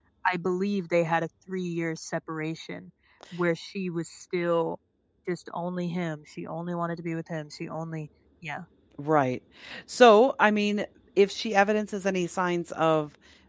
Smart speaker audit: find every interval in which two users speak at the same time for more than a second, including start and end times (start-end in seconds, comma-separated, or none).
none